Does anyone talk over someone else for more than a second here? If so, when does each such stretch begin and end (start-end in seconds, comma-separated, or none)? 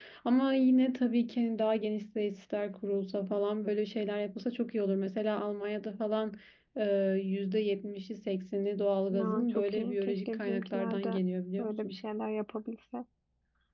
9.1-11.2